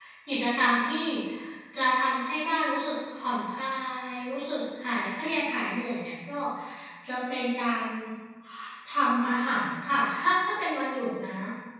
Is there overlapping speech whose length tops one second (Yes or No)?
No